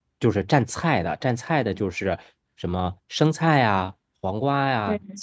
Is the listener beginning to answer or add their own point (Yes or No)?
No